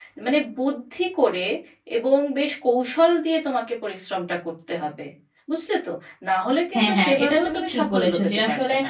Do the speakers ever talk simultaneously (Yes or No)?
Yes